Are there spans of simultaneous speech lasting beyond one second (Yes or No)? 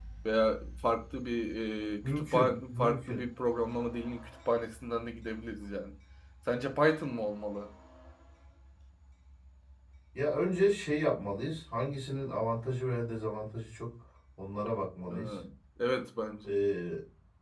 Yes